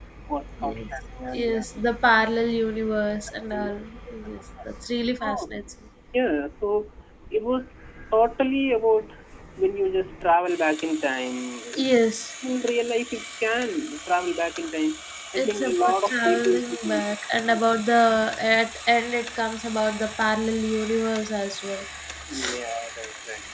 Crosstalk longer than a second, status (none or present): present